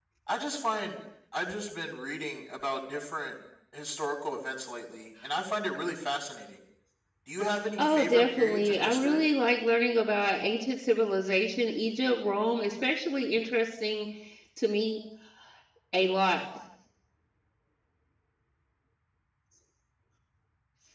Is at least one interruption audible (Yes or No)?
Yes